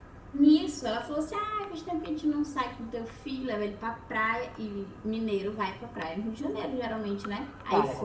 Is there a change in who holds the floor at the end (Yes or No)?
No